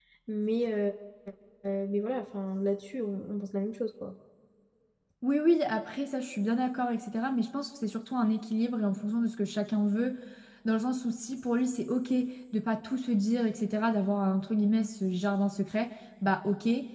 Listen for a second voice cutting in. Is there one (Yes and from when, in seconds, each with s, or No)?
No